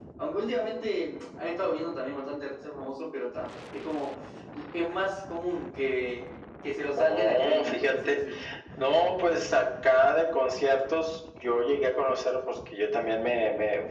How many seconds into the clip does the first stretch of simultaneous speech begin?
7 s

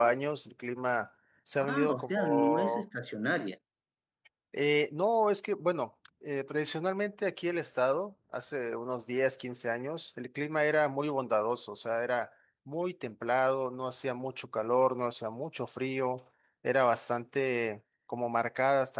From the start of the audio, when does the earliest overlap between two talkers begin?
2 s

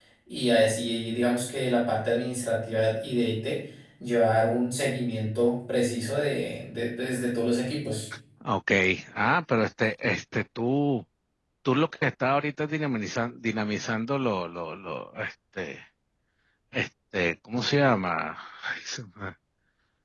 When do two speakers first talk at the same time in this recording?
none

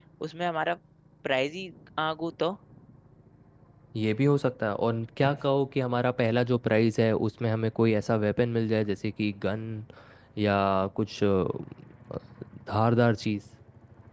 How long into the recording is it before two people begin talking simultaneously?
none

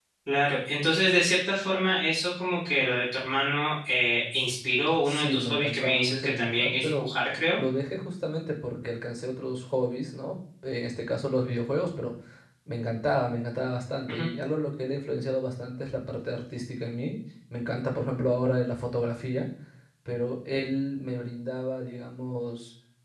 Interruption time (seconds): 5 s

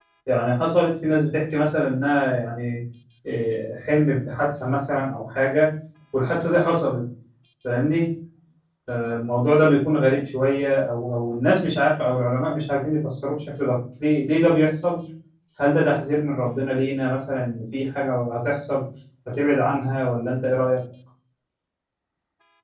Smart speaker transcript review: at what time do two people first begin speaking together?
none

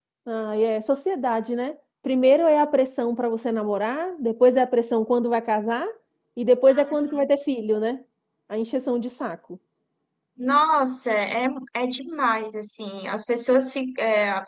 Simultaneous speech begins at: none

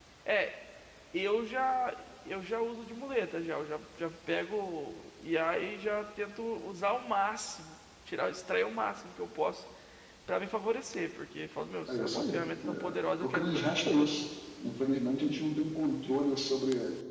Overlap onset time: 12 s

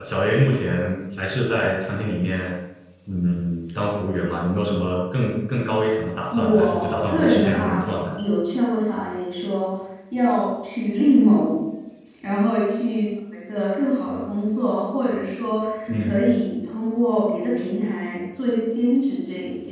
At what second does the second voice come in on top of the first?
6 s

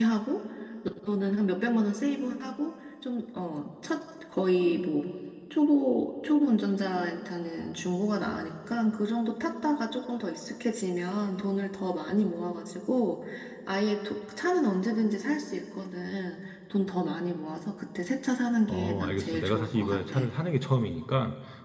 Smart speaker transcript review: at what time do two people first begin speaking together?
19 s

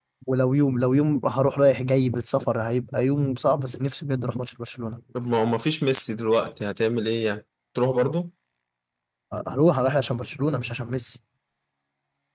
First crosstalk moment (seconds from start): none

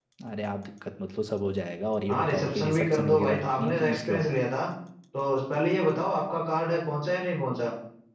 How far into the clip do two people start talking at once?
2 s

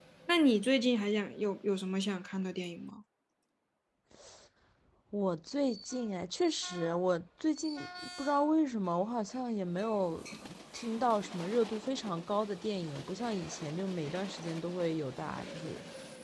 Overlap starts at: none

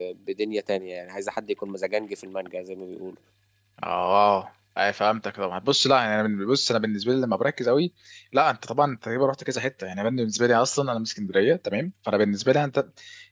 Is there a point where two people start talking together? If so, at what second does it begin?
none

